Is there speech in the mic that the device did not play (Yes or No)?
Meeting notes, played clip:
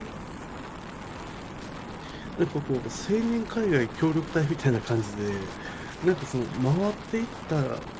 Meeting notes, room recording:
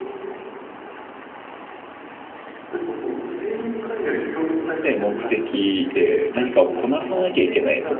Yes